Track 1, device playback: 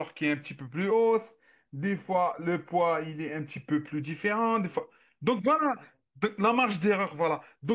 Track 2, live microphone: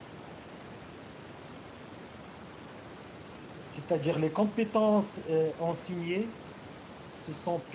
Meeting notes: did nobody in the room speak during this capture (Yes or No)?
No